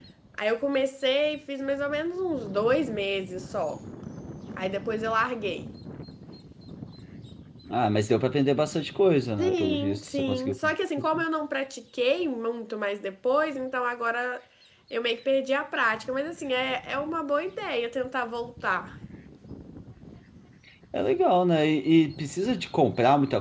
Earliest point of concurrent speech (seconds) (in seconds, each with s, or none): 9.4 s